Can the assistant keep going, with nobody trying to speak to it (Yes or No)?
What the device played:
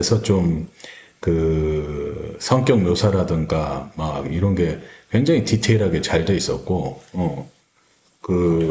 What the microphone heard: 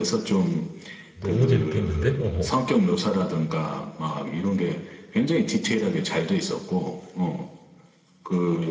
No